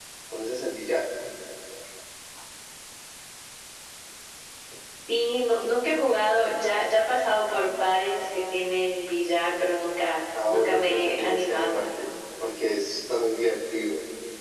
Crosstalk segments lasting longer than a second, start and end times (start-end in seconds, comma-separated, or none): 10.5-11.8